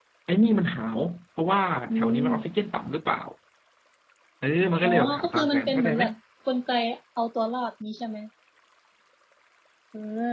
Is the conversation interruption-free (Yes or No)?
No